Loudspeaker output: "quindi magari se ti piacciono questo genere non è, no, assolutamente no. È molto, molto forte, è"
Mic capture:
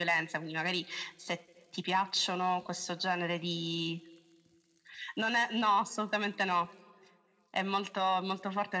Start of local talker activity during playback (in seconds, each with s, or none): none